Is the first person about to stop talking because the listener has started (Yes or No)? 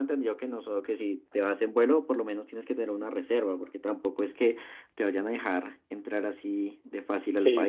Yes